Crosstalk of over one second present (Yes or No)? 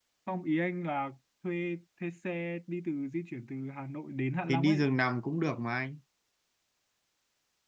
No